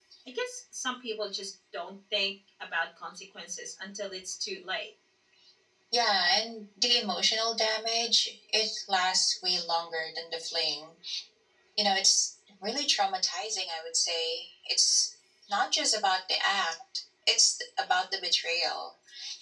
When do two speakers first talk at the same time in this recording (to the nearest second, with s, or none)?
none